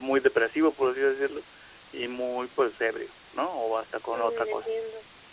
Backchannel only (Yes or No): No